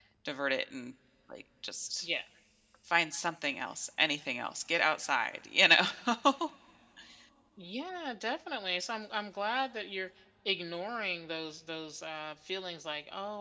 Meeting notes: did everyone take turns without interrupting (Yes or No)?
Yes